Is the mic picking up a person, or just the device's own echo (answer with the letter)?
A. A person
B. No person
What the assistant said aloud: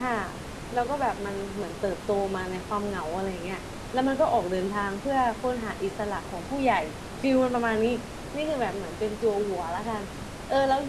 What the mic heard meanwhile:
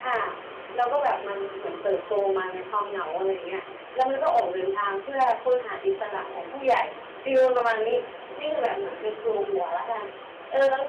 B